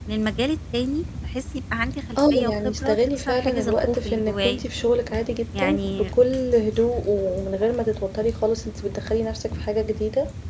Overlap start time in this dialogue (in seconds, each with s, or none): 2.3 s